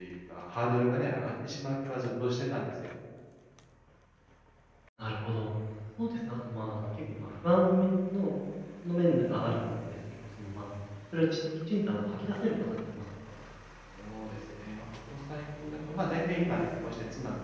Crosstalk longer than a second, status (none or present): none